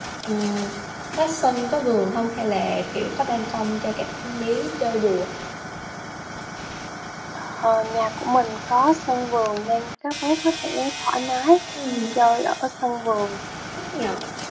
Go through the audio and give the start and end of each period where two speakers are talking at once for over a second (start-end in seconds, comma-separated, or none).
none